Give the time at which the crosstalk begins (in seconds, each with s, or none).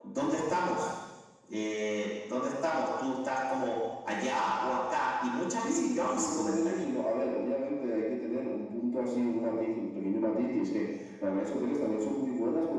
5.5 s